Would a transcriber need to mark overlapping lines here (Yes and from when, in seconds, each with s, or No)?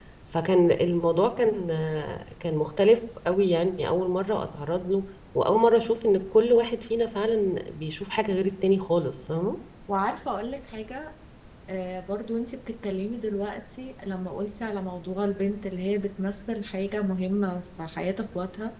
No